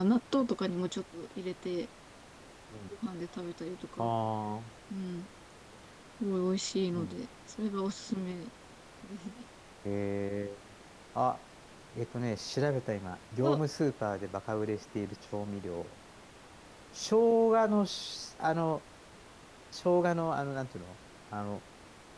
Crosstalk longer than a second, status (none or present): none